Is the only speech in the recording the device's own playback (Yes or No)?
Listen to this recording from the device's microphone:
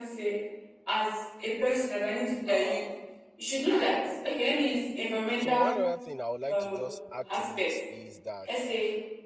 No